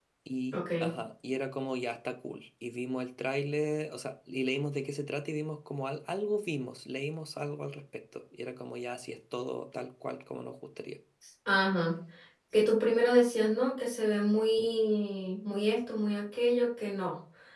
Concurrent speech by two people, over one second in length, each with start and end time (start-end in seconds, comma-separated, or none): none